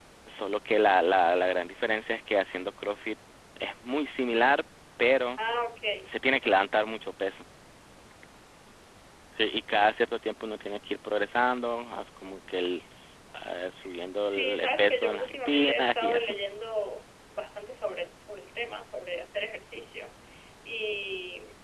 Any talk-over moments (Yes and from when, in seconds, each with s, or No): Yes, from 14.2 s